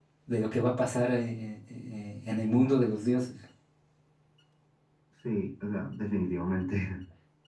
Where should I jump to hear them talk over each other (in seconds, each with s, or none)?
none